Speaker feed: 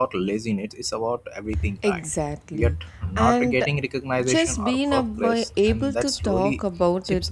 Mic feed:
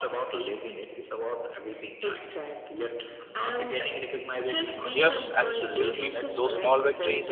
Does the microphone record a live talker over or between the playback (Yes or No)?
Yes